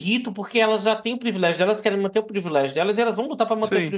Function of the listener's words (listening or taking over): taking over